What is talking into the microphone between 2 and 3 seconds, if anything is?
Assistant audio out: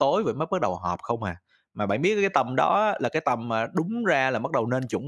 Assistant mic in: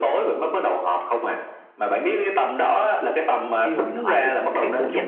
echo only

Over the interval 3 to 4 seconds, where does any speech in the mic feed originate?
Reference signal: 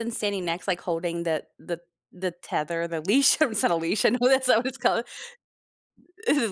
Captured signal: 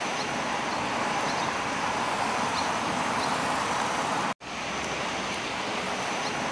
neither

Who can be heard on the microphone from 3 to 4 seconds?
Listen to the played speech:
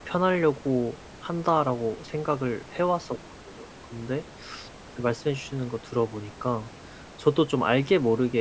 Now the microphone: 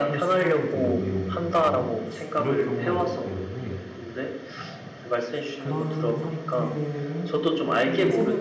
both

